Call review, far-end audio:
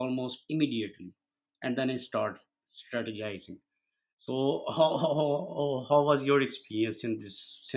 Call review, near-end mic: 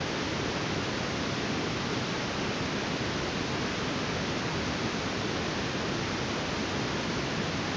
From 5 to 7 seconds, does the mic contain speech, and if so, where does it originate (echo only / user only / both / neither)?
neither